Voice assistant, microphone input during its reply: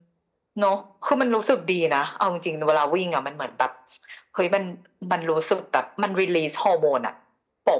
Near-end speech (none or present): none